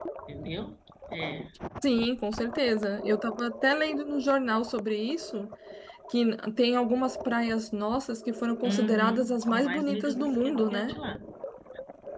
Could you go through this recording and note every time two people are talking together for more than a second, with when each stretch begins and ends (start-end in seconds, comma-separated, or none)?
8.7-10.9